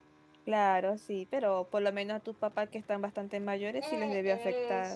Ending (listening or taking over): taking over